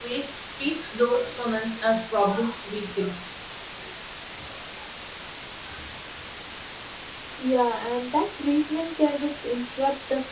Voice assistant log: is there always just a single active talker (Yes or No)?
Yes